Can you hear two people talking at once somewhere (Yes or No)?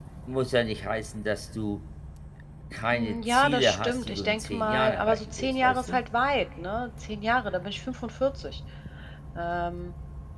Yes